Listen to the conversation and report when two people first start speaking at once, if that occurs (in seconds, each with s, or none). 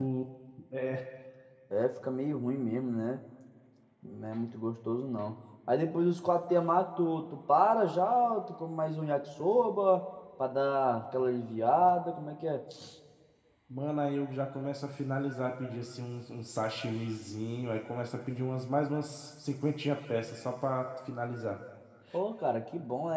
none